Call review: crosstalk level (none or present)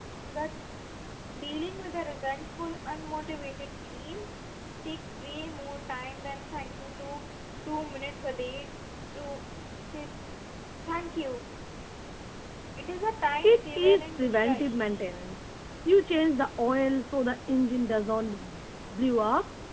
present